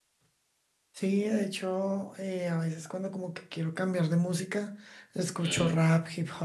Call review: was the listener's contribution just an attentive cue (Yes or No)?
Yes